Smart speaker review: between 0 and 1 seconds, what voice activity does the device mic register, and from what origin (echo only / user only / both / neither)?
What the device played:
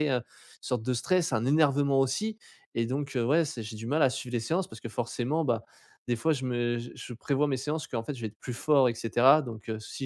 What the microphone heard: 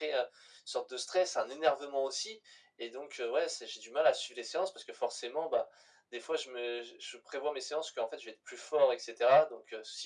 echo only